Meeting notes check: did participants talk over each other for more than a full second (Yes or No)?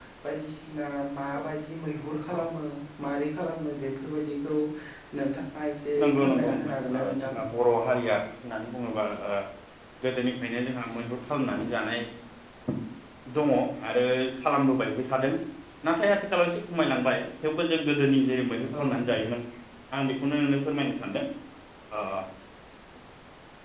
Yes